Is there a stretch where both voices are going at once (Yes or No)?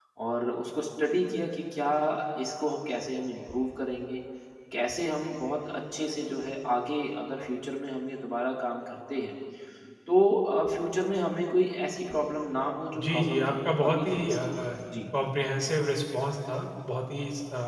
Yes